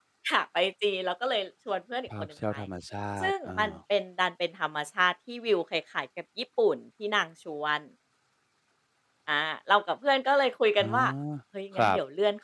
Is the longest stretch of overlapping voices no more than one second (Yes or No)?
Yes